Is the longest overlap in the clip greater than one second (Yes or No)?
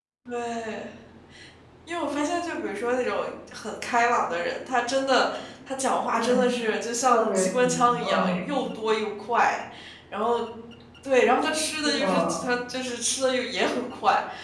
Yes